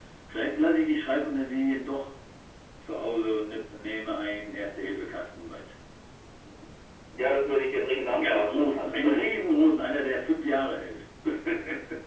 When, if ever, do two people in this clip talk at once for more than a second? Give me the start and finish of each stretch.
8.1-9.7

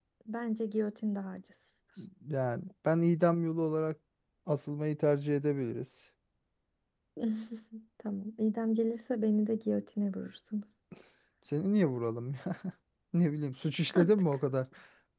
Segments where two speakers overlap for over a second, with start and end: none

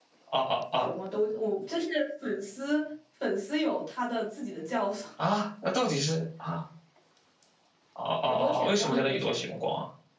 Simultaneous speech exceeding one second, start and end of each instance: 8.3-9.6

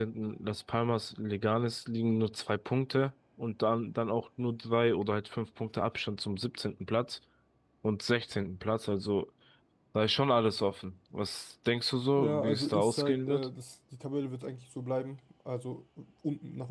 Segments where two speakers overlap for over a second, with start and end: 12.2-13.5

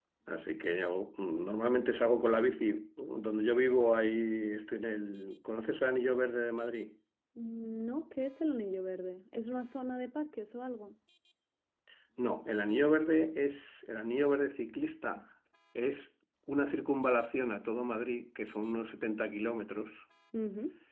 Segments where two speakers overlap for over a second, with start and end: none

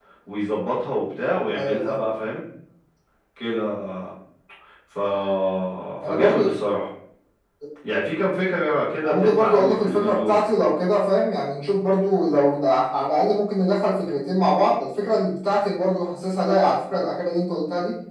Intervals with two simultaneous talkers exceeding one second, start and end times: 9.0-10.5

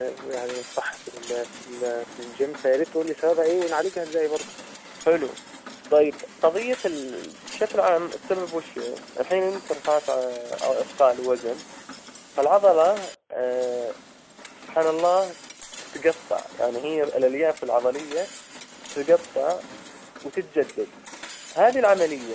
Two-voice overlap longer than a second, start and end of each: none

